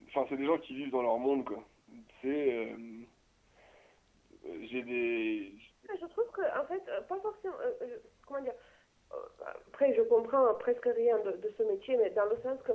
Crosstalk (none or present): none